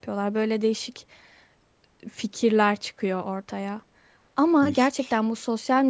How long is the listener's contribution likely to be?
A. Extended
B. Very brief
B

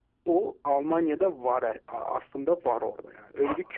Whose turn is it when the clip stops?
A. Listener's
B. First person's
A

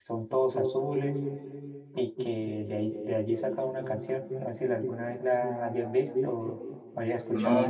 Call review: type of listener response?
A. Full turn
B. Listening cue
A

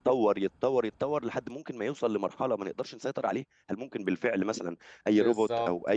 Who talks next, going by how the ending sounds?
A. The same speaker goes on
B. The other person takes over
B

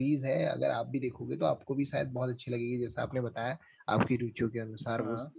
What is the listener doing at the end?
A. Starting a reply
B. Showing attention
B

